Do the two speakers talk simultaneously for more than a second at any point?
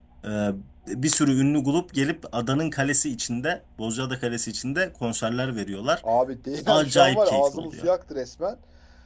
Yes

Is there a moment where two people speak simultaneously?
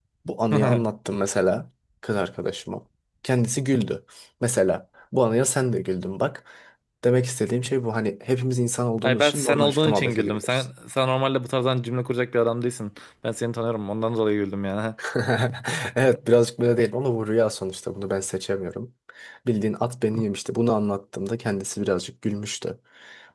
Yes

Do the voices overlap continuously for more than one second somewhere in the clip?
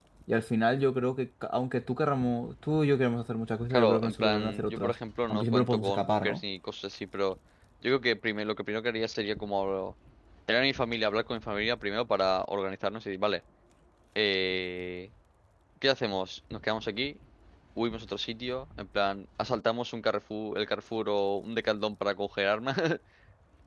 Yes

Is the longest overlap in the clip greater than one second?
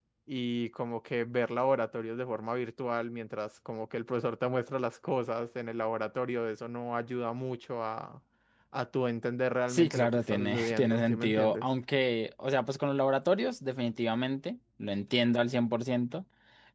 Yes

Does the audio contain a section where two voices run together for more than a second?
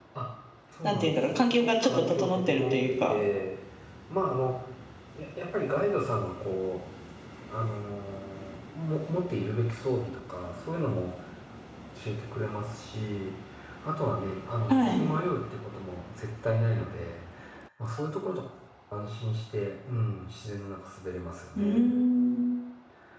Yes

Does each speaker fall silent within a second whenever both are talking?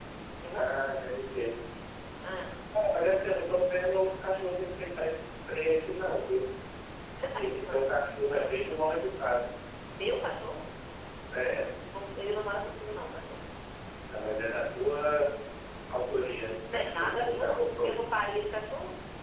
No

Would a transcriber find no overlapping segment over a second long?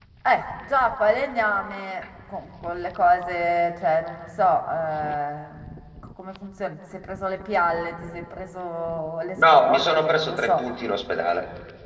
No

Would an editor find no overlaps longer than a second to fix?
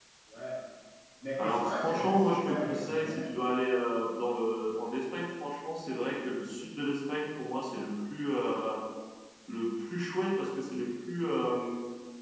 No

